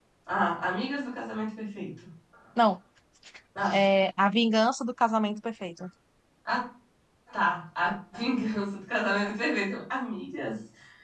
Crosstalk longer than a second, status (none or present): none